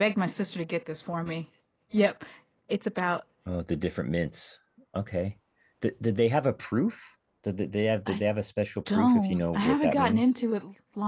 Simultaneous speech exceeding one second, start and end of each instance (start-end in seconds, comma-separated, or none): 8.9-10.3